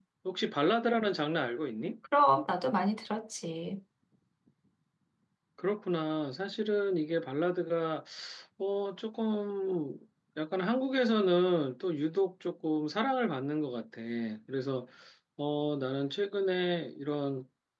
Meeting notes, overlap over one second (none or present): none